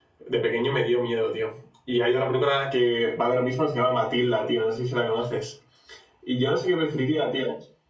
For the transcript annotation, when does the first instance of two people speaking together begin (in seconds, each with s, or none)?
none